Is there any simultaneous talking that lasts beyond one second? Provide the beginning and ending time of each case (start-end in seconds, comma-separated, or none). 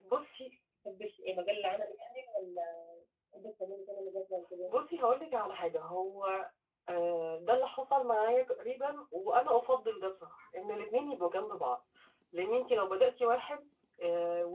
none